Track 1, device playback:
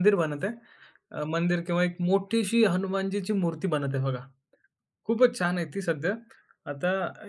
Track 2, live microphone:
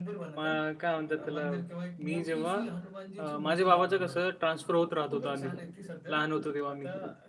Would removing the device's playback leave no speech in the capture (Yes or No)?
No